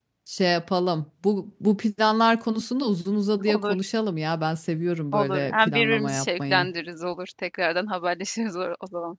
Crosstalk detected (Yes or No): Yes